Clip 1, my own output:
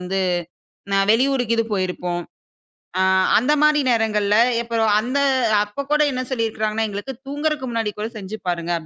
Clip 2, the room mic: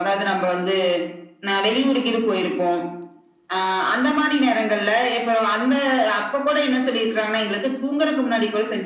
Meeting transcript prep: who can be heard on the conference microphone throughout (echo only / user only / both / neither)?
echo only